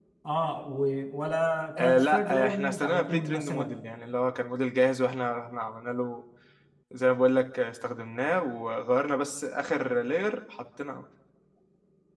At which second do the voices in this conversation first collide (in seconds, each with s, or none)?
1.8 s